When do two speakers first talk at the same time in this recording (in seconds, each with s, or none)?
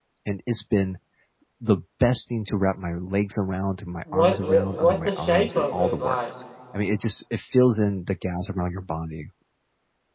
4.1 s